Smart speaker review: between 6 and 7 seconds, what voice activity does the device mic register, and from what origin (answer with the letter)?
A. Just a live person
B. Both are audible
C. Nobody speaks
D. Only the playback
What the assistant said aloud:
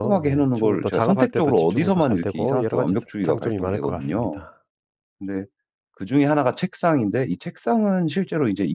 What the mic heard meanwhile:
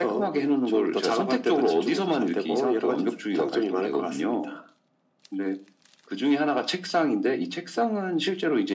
D